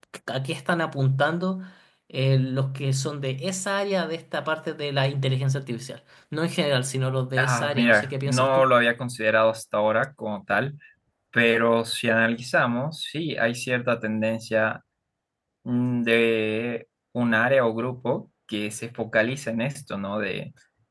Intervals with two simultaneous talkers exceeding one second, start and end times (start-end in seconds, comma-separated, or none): 7.4-8.7